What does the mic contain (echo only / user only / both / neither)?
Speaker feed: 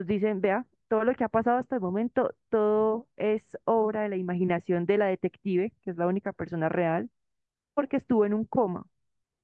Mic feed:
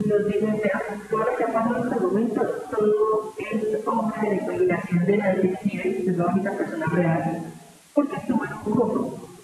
echo only